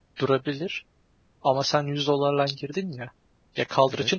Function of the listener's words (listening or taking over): listening